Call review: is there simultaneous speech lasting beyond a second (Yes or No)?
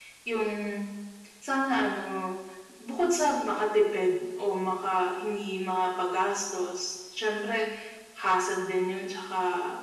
No